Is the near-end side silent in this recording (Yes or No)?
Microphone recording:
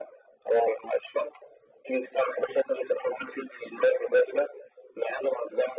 Yes